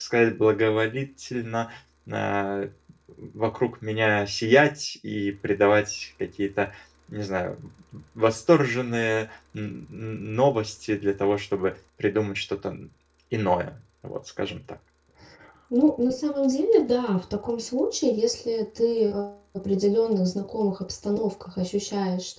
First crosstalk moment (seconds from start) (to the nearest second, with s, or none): none